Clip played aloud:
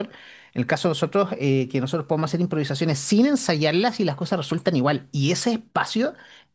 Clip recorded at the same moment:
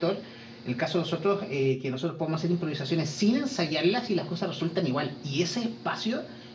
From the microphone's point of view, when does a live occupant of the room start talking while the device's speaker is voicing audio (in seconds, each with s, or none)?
none